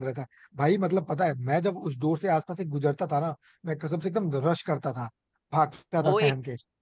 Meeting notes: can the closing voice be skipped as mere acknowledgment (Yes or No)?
No